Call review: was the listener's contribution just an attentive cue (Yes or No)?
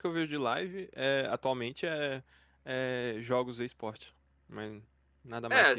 No